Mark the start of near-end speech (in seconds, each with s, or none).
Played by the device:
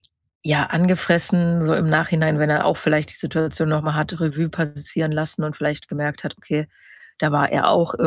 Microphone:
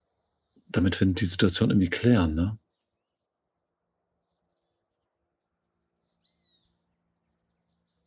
0.7 s